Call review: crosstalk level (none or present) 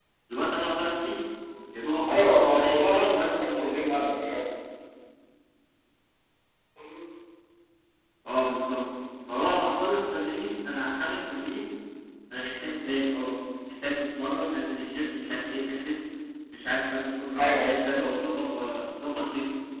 present